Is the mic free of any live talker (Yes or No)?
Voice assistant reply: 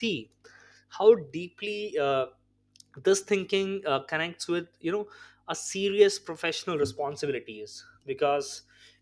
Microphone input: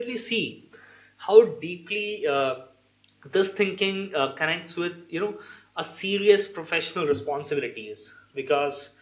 Yes